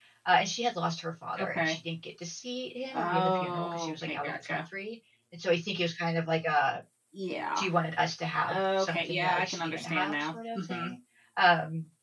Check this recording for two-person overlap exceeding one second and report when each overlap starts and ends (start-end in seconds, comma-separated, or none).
2.9-4.6, 8.5-10.9